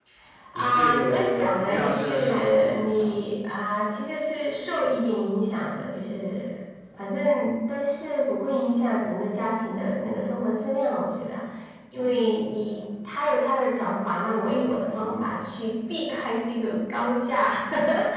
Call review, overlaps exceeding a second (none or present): present